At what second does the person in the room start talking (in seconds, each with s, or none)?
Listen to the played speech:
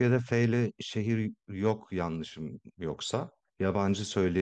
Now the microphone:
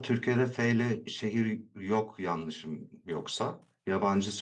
none